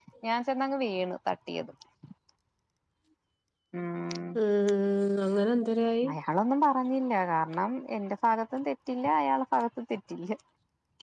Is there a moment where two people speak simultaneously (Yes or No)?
No